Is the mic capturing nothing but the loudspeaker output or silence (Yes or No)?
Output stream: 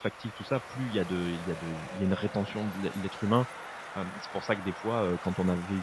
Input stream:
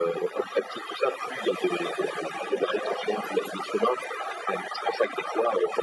Yes